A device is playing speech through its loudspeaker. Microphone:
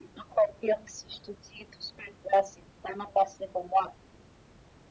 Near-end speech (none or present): none